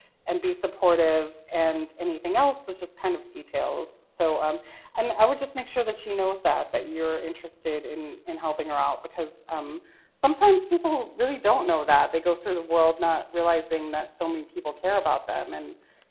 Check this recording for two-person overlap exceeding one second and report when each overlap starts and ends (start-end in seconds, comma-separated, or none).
none